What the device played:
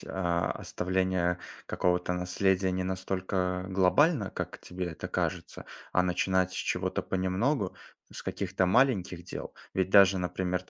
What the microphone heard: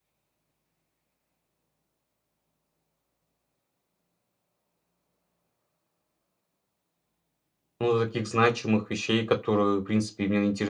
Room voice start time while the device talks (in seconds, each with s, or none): 7.8 s